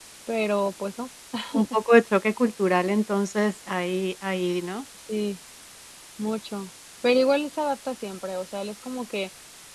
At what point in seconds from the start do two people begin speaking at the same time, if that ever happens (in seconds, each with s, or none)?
none